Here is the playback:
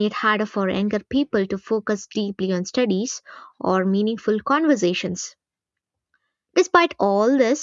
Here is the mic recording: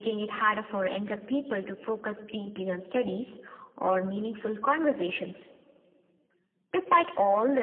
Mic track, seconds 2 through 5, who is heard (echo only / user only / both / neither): echo only